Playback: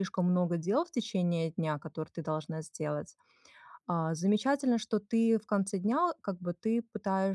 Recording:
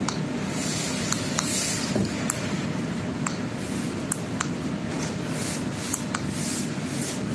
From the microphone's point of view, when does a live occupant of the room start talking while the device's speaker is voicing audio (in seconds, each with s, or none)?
none